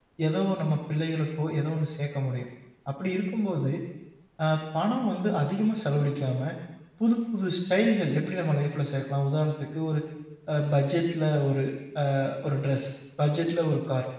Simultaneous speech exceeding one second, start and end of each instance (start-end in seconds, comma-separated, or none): none